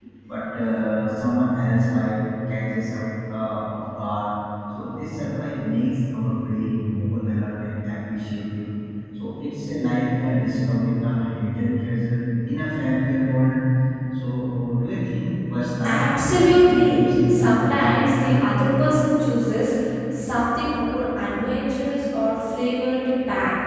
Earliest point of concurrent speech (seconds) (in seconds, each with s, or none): 15.8 s